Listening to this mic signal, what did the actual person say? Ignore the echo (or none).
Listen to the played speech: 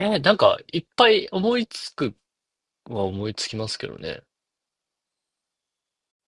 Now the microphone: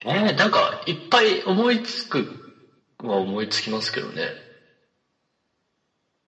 none